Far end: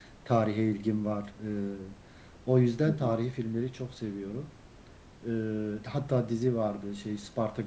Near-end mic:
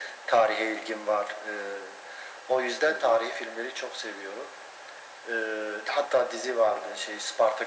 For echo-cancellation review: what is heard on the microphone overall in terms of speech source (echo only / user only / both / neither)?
echo only